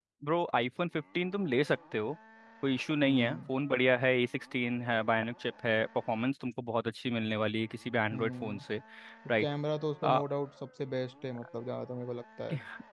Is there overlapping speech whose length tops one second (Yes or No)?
No